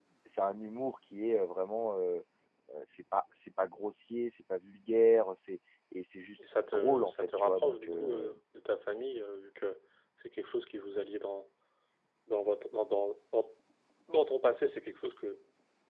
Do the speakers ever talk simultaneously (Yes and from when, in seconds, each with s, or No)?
Yes, from 6.4 s